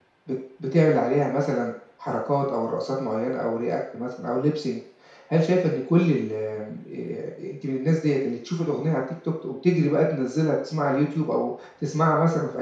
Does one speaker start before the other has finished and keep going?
No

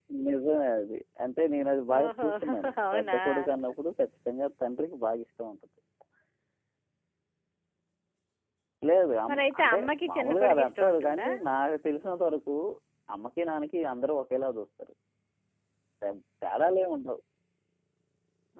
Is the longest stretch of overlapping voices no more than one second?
No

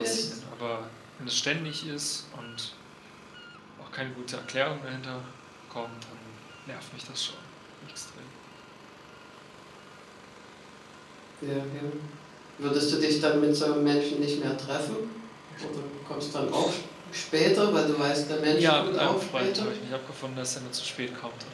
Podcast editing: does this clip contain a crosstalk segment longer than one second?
Yes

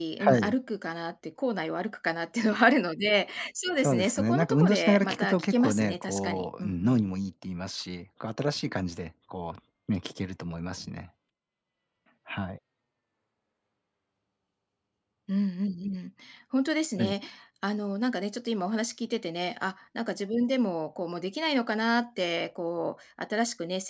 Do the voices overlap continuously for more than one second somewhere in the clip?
Yes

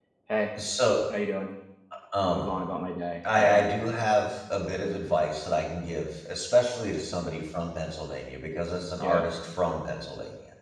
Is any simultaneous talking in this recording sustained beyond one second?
No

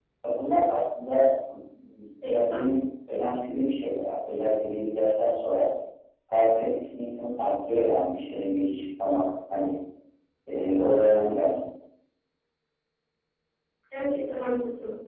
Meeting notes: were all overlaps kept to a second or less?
Yes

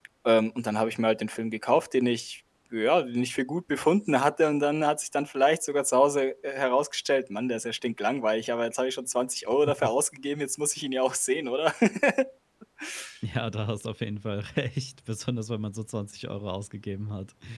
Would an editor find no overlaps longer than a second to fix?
Yes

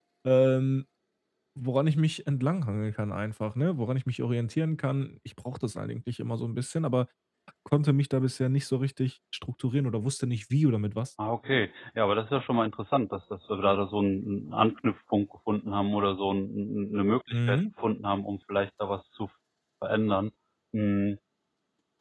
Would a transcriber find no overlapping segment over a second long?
Yes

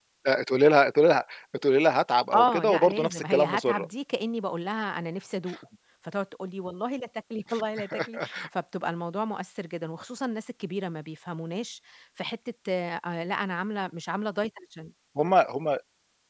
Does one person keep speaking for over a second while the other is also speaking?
Yes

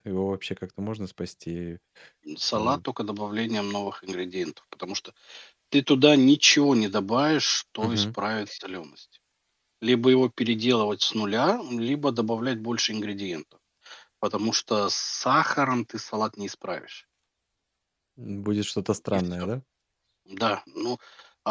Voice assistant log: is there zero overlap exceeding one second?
Yes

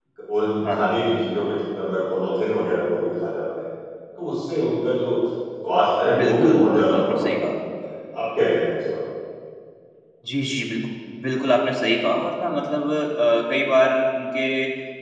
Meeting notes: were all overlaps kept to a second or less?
No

